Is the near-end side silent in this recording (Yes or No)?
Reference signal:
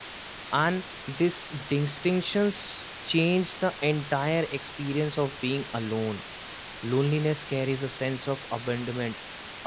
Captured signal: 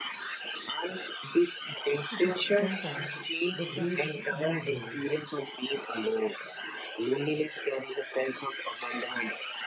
No